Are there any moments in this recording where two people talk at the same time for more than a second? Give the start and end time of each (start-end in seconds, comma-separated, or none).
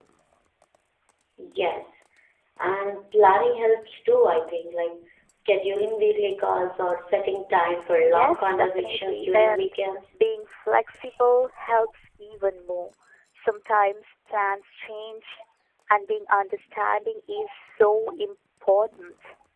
8.1-9.7